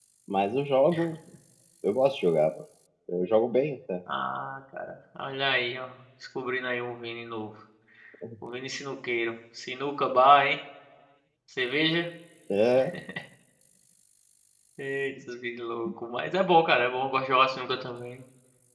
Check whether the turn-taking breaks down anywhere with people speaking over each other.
No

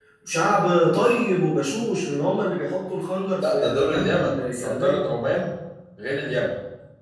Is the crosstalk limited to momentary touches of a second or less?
No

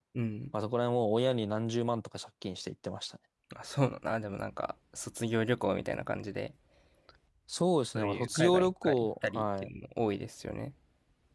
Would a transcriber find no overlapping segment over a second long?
No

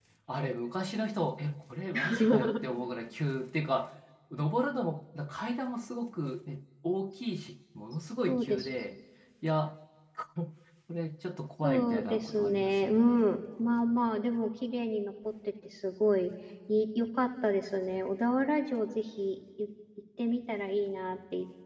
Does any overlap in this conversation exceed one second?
Yes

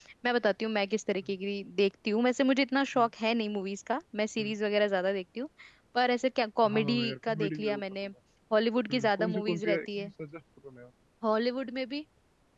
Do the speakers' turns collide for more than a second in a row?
Yes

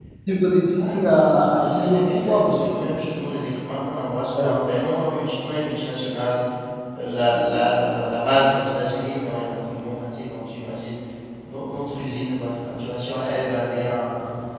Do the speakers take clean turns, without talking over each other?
No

